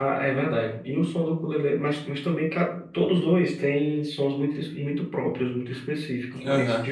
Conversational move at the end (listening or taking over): listening